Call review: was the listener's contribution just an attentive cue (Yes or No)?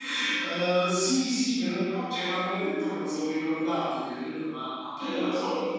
No